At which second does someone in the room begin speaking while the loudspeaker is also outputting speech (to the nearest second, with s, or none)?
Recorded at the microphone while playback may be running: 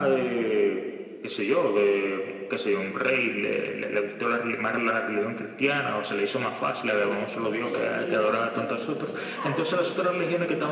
7 s